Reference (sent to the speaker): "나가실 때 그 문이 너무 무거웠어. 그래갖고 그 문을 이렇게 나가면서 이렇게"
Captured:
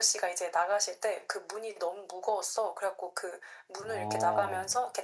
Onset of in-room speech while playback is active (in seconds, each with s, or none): 3.8 s